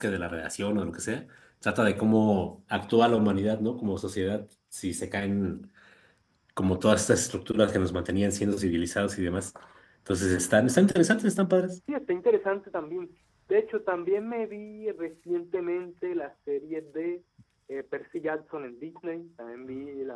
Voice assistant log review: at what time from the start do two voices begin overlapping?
none

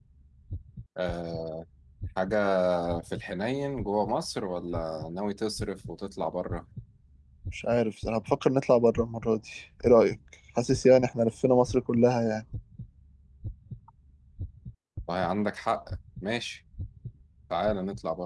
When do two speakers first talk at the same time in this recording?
none

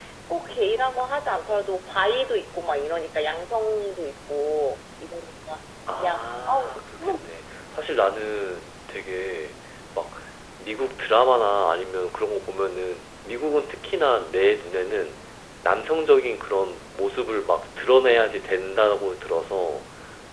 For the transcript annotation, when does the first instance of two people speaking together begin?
5.9 s

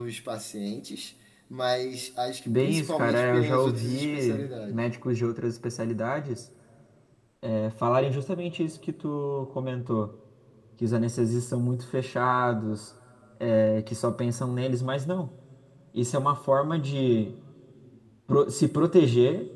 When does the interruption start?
2.5 s

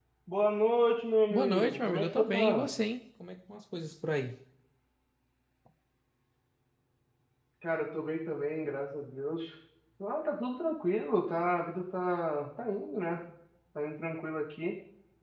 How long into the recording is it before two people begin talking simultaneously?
1.3 s

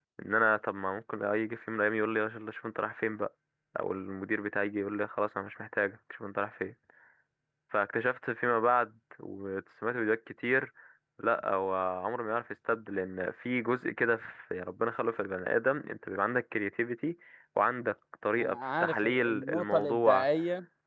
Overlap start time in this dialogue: 18.4 s

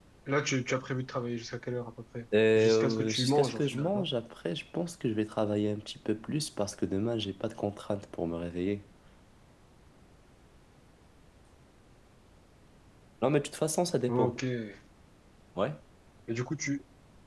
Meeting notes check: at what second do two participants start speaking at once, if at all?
2.5 s

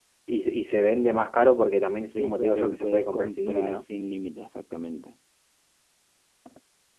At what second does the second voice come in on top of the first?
2.1 s

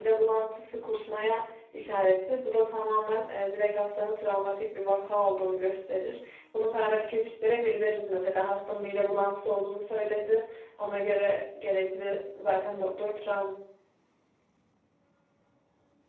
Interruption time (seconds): none

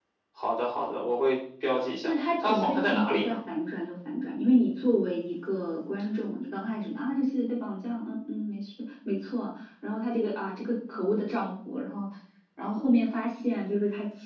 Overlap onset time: 2.0 s

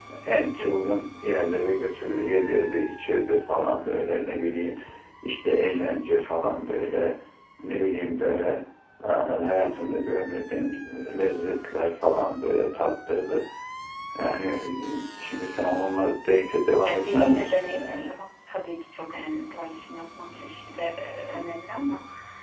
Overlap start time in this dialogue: 16.8 s

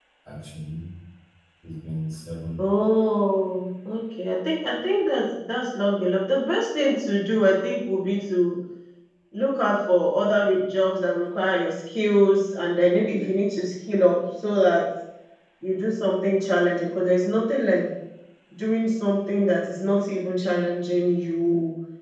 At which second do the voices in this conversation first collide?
none

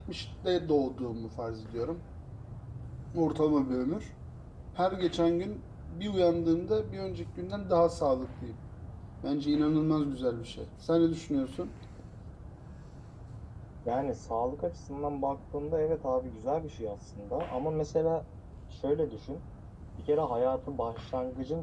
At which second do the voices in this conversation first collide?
none

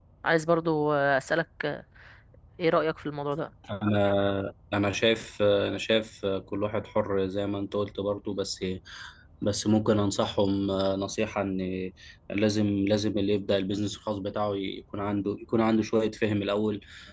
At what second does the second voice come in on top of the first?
none

